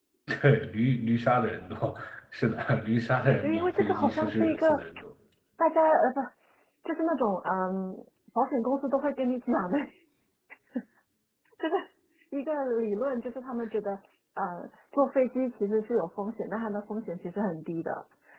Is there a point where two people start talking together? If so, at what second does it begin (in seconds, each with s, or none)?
3.4 s